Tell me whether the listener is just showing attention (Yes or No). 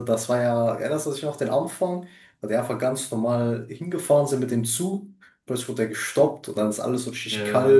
Yes